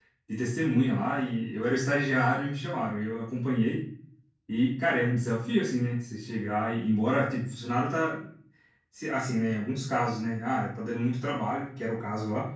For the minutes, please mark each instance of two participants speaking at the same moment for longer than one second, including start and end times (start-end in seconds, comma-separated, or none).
none